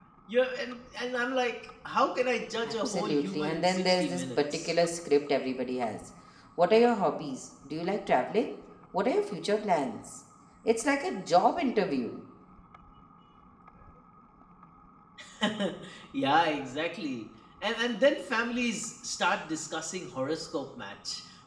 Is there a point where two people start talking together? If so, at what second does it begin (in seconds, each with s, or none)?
2.6 s